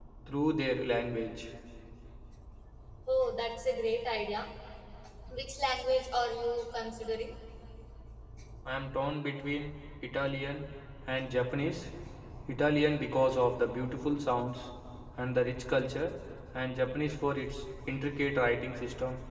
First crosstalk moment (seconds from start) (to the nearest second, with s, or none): none